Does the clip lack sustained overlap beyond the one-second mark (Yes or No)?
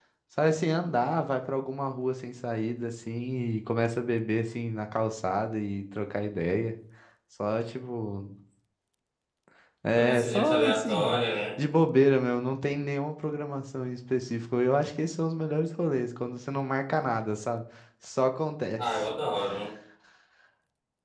No